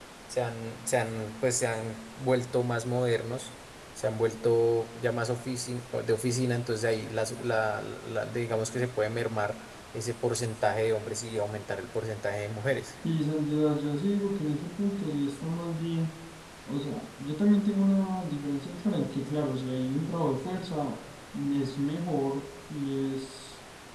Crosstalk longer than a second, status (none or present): none